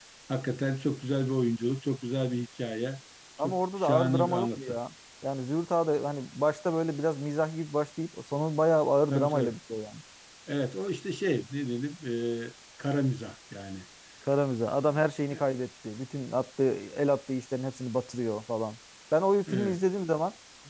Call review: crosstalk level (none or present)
present